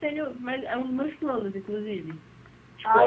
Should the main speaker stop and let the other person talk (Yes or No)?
Yes